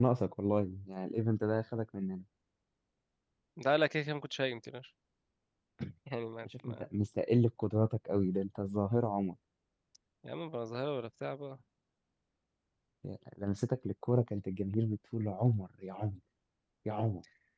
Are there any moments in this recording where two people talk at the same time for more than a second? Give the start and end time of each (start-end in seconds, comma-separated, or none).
none